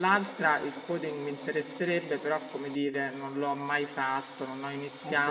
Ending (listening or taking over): listening